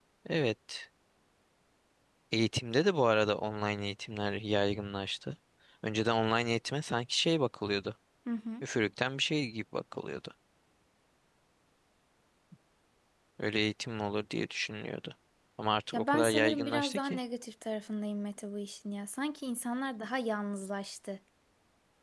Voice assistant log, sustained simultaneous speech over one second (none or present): present